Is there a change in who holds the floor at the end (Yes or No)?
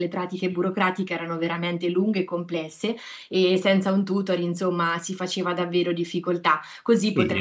Yes